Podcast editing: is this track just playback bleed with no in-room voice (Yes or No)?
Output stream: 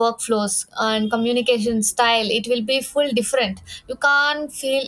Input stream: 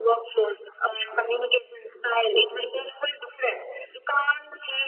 Yes